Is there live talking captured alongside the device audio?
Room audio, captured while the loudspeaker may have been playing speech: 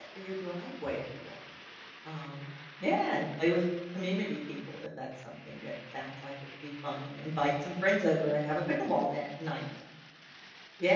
Yes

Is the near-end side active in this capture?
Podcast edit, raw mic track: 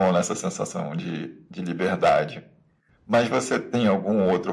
No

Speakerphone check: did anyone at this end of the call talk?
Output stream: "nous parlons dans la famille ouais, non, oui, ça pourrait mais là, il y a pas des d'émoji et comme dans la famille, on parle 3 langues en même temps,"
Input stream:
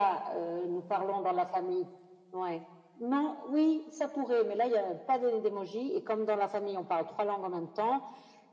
No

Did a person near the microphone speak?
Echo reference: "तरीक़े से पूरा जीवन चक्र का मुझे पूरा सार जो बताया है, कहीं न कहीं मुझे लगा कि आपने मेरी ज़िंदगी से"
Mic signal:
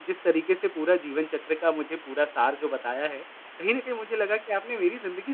No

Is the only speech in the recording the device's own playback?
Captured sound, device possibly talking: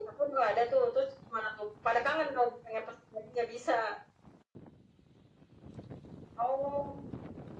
Yes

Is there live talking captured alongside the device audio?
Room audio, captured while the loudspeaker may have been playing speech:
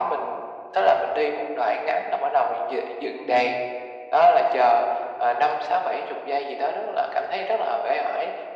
Yes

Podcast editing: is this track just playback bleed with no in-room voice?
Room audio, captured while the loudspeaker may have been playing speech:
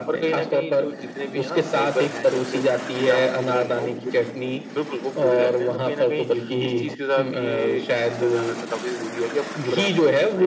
Yes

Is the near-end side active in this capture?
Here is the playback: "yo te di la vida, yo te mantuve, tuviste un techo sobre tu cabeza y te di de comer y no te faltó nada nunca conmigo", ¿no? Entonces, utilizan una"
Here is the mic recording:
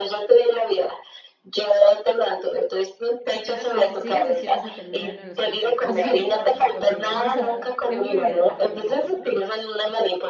Yes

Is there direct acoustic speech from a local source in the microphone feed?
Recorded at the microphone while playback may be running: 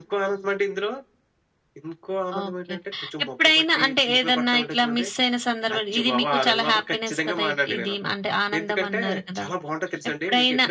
No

